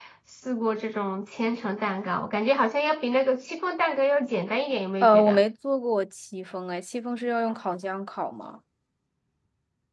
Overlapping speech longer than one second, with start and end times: none

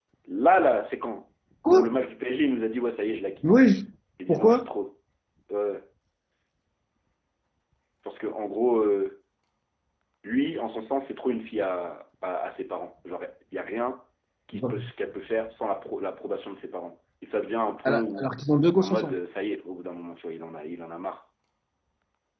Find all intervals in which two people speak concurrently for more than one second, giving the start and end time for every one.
none

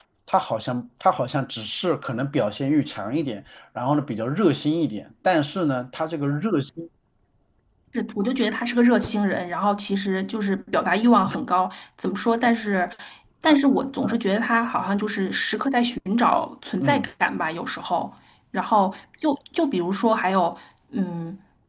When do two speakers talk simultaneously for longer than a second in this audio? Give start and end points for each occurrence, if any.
none

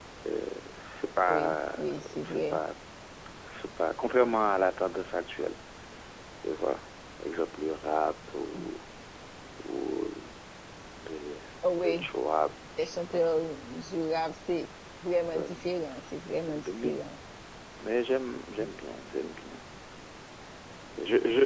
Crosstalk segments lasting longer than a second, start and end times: 1.3-2.6

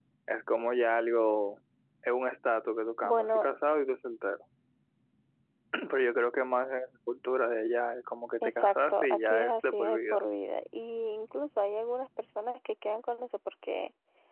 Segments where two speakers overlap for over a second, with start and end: 8.4-10.2

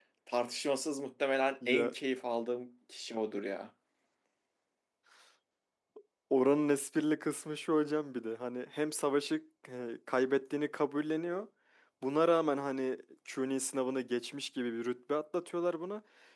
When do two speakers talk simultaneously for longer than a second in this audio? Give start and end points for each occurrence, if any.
none

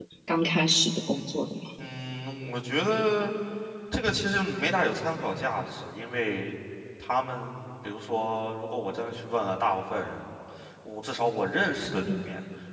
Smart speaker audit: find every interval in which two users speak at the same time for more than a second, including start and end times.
none

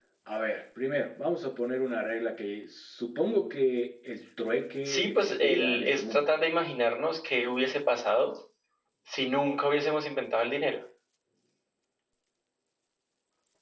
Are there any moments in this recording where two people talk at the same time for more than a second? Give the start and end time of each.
4.8-6.3

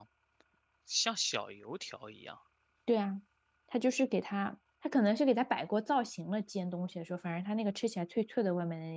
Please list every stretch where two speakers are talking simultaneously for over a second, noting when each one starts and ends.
none

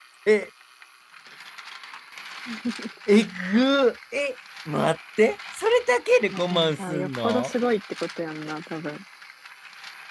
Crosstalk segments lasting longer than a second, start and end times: 6.3-7.5

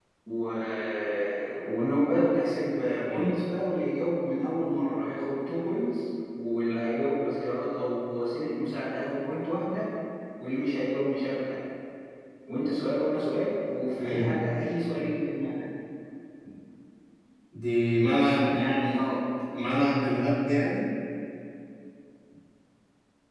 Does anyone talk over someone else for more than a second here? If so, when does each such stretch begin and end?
none

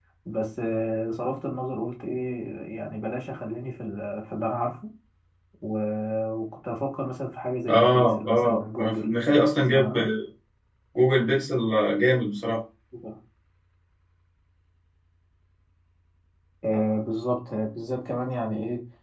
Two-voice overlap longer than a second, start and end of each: 7.7-9.1

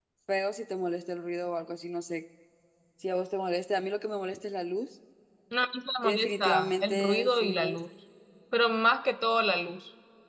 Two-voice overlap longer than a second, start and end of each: 6.0-7.8

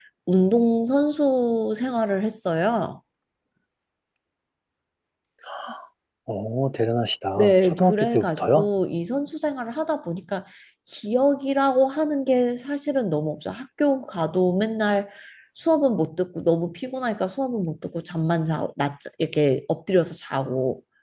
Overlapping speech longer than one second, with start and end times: 7.4-8.7

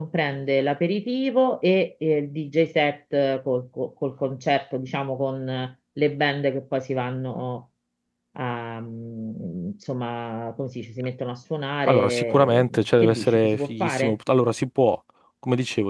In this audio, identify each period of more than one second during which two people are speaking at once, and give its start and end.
11.9-14.2

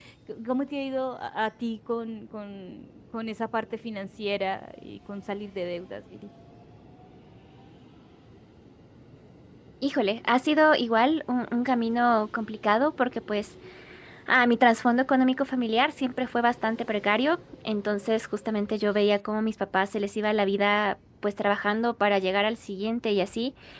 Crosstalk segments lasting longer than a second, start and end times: none

